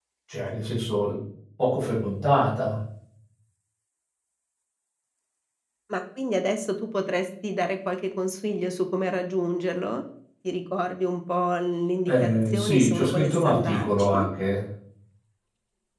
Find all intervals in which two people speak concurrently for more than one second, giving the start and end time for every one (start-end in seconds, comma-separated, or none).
12.1-14.3